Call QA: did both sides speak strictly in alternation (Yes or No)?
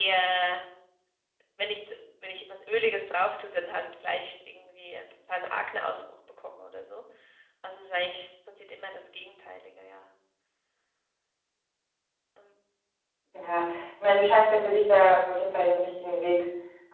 Yes